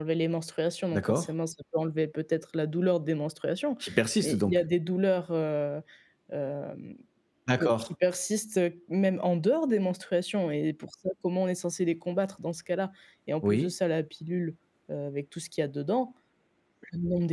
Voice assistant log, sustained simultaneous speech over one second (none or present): none